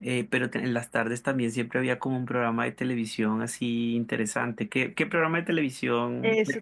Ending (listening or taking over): taking over